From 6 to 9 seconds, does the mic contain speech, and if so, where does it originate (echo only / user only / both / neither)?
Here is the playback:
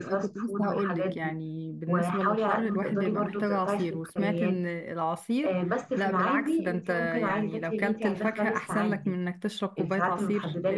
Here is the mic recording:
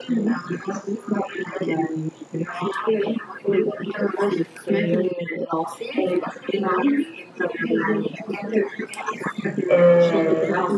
echo only